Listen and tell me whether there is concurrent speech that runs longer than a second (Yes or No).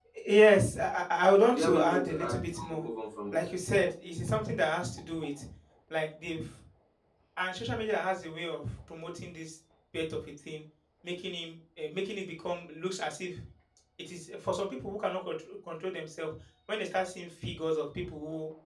Yes